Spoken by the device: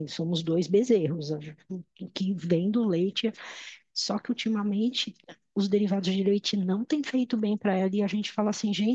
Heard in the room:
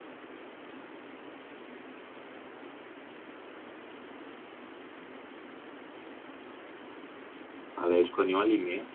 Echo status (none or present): none